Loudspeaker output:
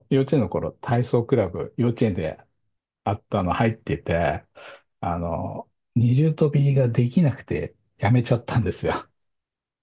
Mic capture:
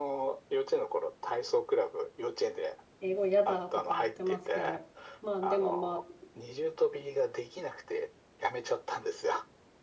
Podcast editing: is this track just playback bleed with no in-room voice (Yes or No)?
No